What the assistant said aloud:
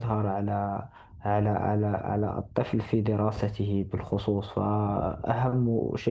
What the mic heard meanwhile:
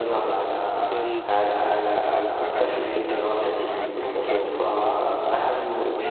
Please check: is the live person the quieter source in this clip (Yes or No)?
Yes